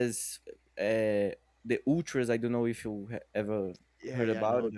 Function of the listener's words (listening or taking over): taking over